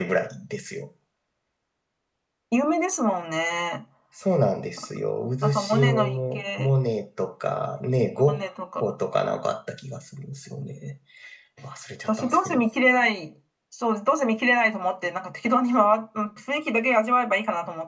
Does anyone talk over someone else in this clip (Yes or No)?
Yes